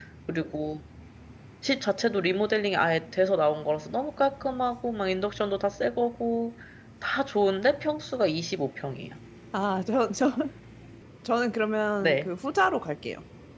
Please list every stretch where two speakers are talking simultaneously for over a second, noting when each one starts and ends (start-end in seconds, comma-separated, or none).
none